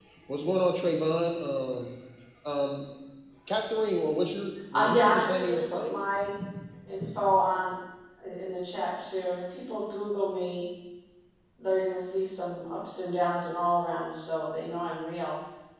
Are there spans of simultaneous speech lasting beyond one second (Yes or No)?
Yes